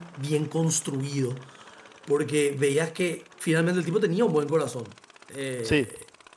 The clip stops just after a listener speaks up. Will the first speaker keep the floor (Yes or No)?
Yes